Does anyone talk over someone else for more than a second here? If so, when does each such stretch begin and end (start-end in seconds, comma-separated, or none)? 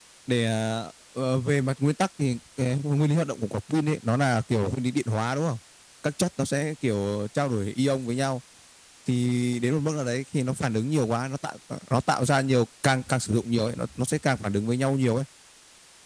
none